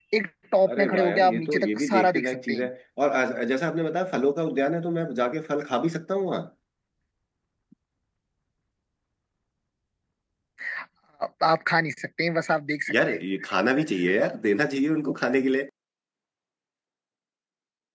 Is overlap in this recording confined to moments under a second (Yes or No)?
No